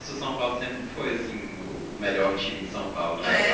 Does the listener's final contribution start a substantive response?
Yes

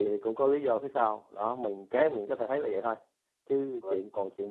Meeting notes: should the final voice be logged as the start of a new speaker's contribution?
No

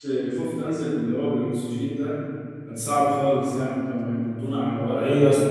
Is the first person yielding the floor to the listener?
Yes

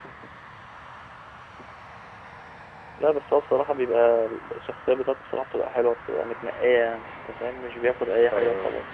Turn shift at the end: Yes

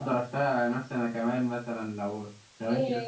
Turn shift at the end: Yes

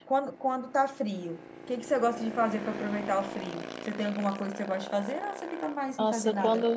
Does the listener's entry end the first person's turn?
Yes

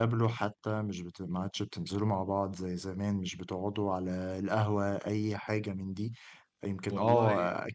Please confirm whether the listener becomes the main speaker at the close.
No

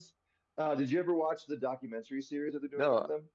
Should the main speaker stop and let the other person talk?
Yes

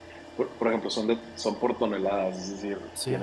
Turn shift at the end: No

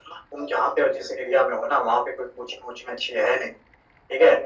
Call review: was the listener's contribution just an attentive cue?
Yes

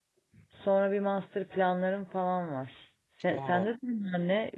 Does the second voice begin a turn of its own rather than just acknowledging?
No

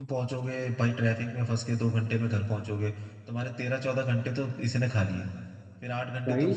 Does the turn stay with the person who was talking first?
Yes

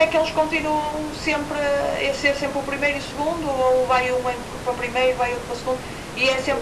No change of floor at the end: Yes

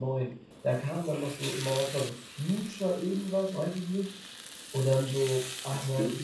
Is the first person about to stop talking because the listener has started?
No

